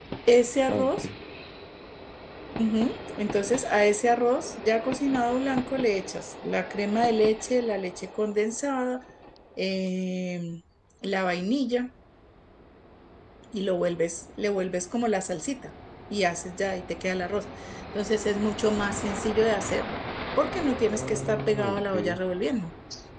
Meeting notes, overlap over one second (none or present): present